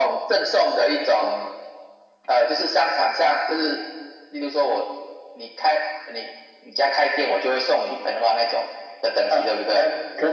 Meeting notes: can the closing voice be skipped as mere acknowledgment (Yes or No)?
No